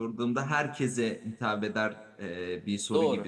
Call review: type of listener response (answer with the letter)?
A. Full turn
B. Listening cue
B